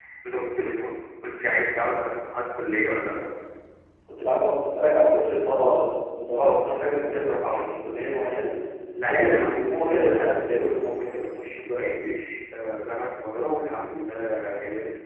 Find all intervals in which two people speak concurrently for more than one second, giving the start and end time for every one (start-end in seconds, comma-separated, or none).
6.4-7.7, 9.1-11.4